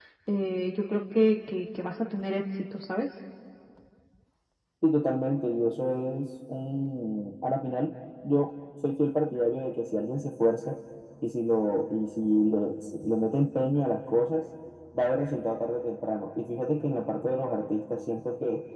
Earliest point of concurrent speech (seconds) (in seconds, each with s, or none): none